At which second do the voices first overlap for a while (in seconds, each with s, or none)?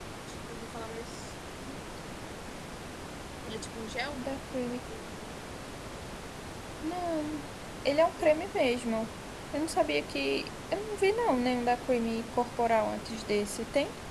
none